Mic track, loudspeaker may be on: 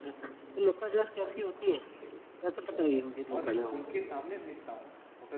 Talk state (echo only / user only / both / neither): both